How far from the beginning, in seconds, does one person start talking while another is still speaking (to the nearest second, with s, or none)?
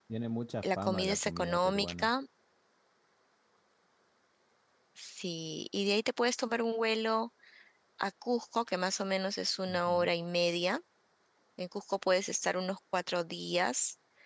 1 s